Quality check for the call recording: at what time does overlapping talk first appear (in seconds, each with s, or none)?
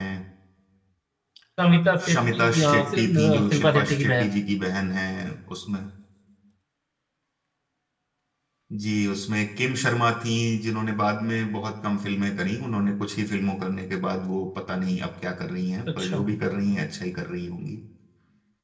2.1 s